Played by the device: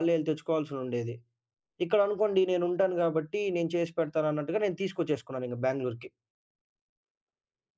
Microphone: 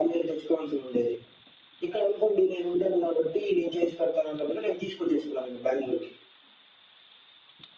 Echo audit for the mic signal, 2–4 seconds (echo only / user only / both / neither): echo only